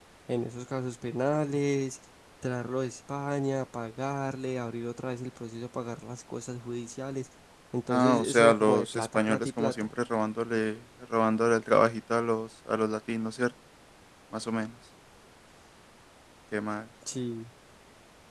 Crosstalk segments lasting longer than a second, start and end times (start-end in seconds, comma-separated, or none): 7.9-9.9